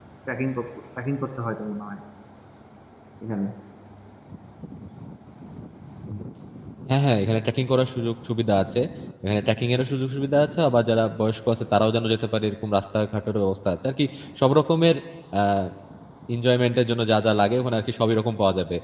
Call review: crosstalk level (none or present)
none